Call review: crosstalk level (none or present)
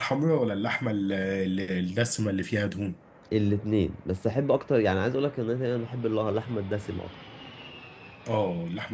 none